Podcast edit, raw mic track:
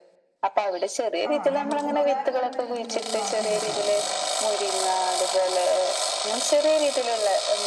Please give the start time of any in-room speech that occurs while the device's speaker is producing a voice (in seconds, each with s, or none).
1.3 s